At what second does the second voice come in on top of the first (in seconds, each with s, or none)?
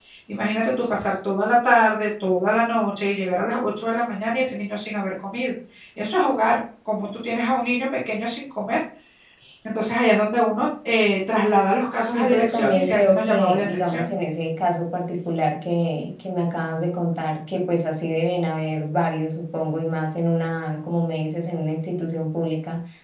12.0 s